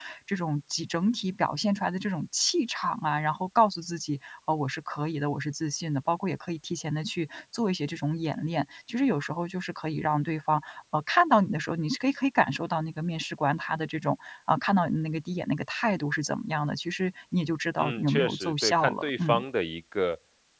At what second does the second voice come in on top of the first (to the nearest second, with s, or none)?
18 s